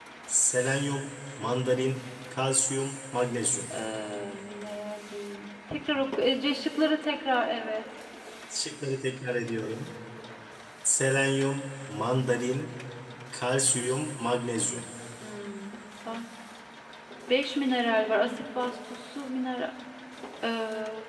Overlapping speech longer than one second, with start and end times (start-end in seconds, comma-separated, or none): none